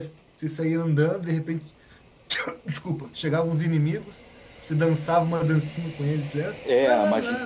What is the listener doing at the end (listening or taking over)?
taking over